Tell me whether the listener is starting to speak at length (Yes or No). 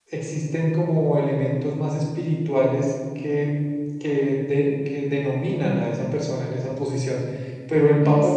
No